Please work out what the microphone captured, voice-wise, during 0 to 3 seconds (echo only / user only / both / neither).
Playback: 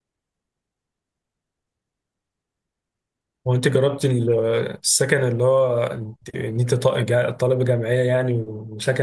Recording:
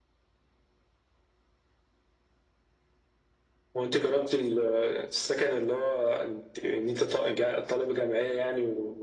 neither